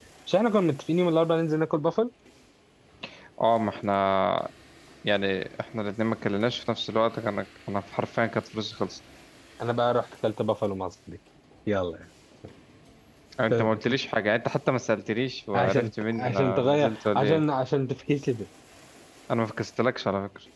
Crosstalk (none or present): present